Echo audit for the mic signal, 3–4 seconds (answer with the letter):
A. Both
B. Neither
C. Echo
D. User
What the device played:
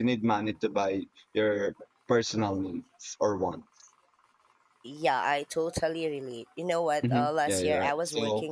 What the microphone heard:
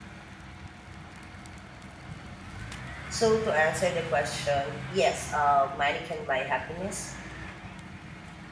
D